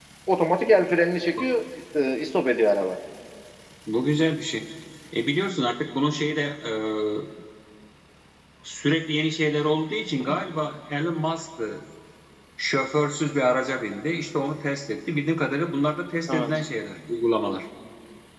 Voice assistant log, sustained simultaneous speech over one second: none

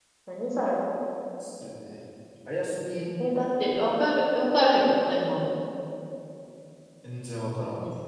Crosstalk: none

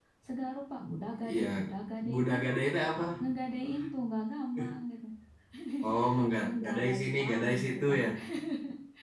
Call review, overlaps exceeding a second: present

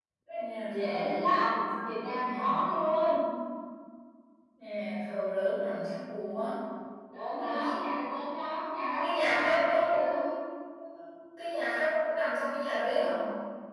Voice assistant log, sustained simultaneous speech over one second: present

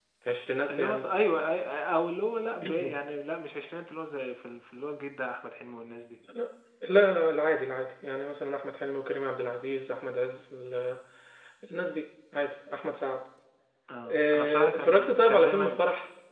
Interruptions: present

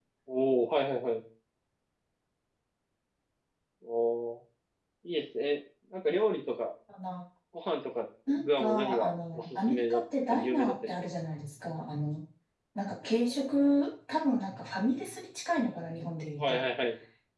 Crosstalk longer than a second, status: present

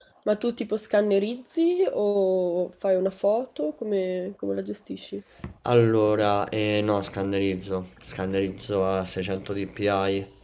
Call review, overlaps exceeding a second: none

